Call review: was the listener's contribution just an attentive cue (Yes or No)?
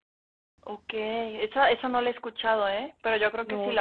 Yes